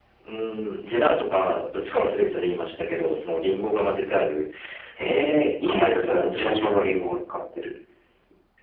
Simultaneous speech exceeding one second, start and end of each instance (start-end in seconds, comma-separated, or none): 5.0-7.2